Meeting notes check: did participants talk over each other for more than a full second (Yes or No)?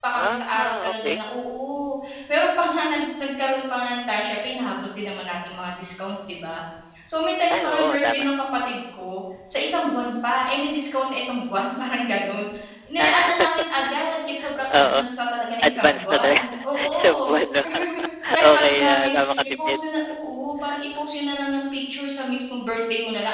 Yes